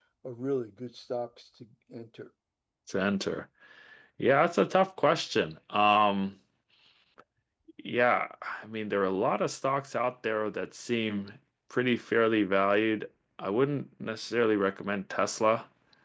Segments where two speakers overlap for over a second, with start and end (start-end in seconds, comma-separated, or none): none